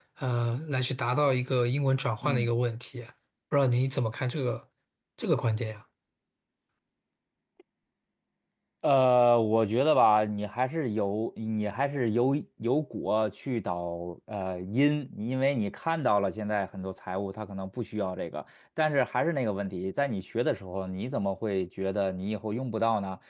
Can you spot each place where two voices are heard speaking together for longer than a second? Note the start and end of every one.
none

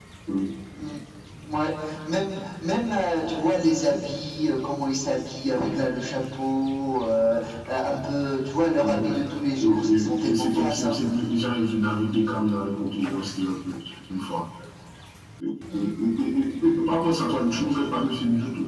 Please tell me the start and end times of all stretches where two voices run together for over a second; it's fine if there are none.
9.6-11.0

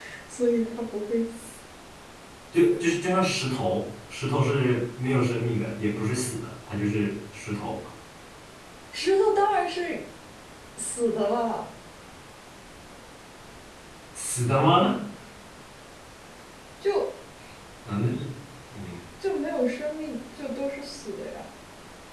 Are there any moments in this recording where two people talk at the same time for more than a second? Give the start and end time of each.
none

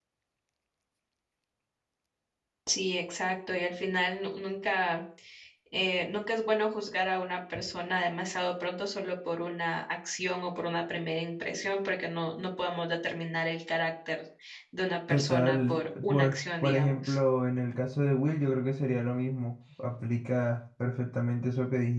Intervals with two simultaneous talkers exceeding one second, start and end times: 15.1-17.2

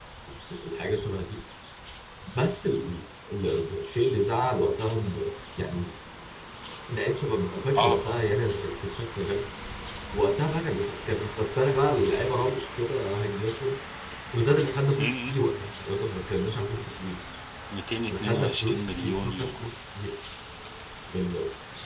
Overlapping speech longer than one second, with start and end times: 18.1-19.7

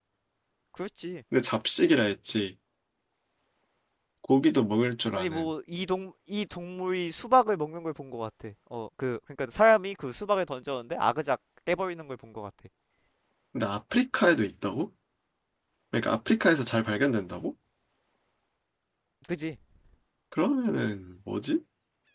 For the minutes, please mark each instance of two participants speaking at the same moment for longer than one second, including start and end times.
none

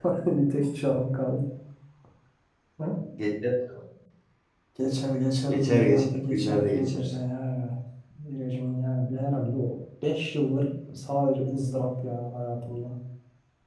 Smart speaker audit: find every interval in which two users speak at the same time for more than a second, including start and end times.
5.5-7.1

